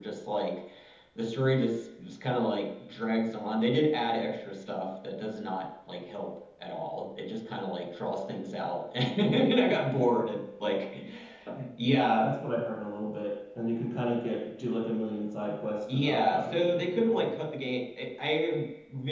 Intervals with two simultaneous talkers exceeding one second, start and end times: 15.9-17.3

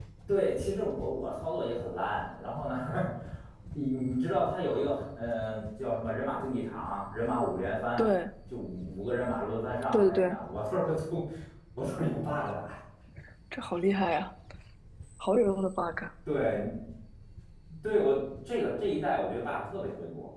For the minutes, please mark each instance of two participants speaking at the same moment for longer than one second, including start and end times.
none

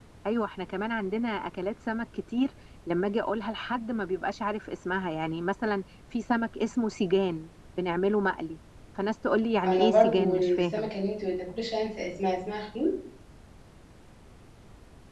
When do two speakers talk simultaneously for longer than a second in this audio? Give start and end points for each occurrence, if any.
9.6-10.9

